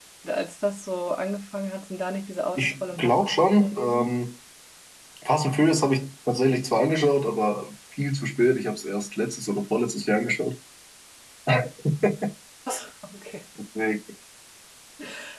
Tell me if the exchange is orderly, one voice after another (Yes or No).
No